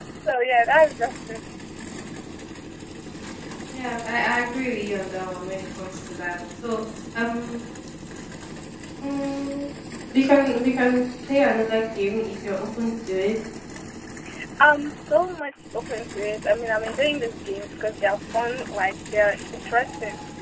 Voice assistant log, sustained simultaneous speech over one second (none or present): none